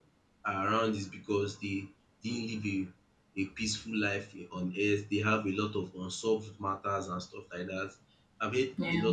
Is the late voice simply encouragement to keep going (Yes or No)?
Yes